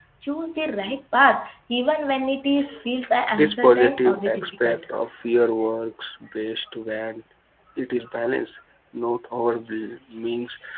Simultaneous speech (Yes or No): Yes